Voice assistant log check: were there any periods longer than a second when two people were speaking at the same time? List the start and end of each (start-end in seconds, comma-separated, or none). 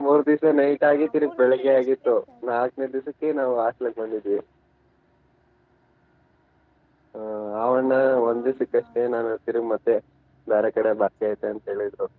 0.9-2.1